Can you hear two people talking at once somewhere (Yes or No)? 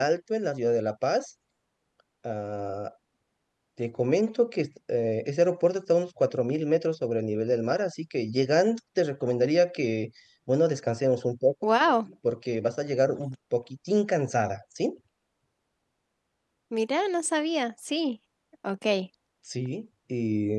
No